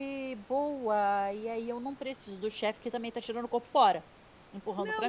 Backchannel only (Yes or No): No